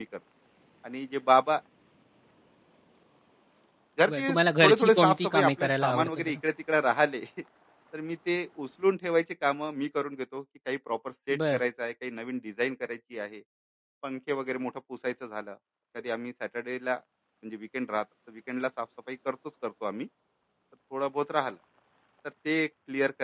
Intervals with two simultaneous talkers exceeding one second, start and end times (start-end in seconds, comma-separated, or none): 4.1-6.4